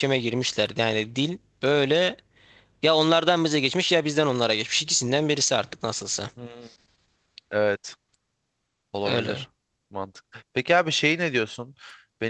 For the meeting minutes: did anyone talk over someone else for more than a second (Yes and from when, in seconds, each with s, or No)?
No